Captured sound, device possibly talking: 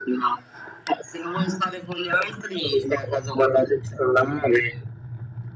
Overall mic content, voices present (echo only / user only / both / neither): echo only